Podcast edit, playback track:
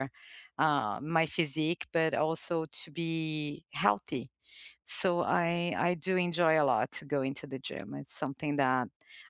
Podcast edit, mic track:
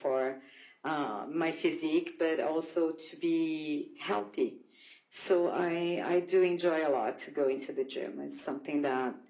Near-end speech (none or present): none